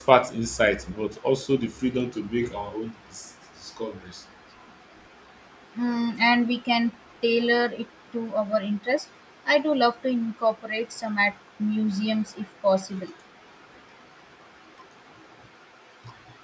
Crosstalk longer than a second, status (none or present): none